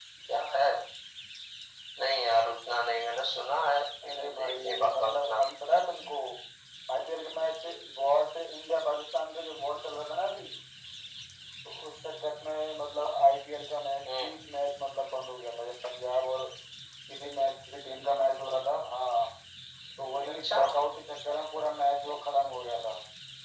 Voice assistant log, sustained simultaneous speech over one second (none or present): present